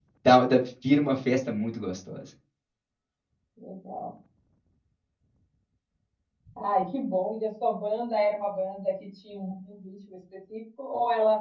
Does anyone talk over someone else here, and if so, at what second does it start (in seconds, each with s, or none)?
none